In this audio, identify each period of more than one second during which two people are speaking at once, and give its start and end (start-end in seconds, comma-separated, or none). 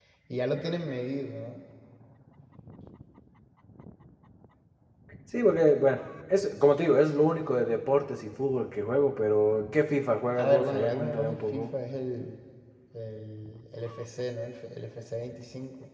10.4-11.7